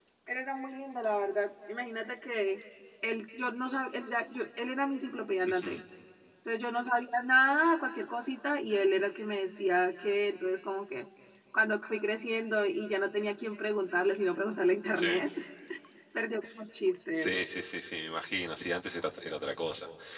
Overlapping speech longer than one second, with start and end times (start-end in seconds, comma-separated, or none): none